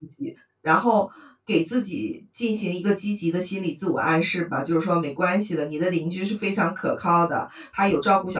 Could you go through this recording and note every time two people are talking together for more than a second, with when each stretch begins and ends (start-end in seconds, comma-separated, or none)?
none